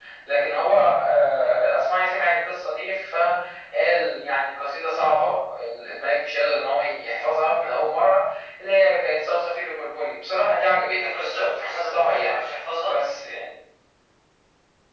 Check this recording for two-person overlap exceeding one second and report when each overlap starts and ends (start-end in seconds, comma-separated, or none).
10.9-12.3